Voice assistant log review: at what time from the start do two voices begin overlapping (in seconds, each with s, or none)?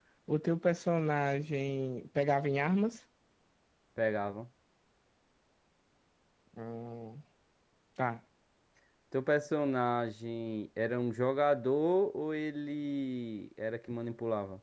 none